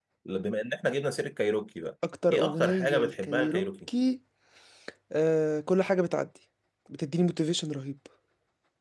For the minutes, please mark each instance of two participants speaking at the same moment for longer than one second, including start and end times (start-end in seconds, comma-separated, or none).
2.3-3.9